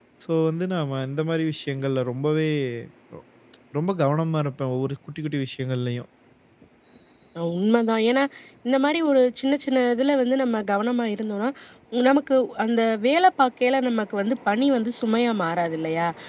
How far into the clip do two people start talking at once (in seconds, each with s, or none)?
none